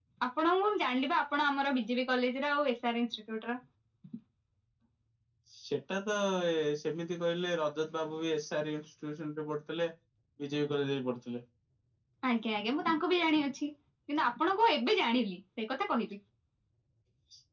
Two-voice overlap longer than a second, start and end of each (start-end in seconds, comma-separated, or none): none